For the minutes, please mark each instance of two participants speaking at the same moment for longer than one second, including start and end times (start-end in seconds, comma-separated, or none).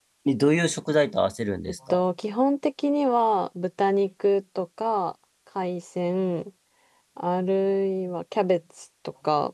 none